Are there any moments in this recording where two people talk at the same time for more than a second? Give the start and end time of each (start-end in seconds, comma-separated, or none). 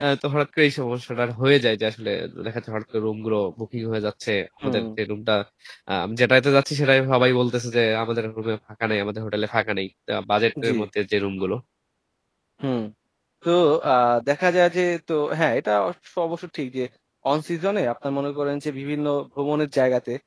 none